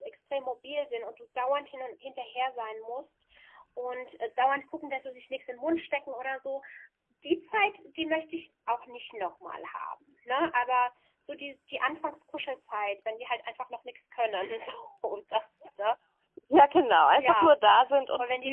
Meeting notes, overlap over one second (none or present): none